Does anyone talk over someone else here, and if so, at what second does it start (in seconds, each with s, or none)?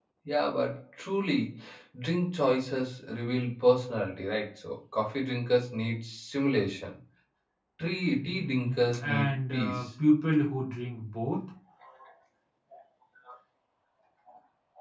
8.1 s